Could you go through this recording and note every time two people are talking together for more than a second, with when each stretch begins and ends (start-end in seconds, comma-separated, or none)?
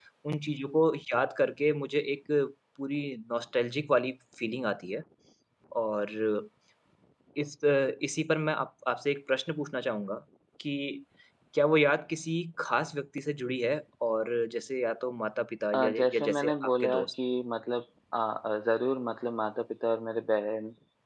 15.8-17.1